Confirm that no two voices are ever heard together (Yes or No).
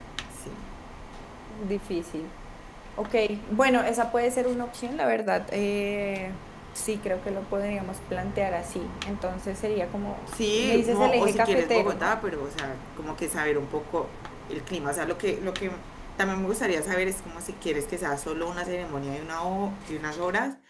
No